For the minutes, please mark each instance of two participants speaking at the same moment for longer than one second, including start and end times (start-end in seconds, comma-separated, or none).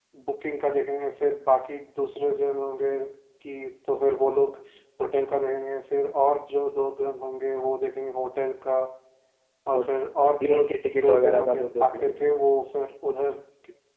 11.0-12.2